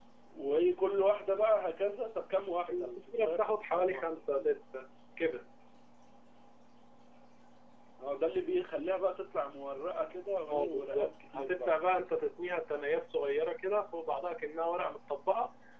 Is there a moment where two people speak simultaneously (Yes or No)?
Yes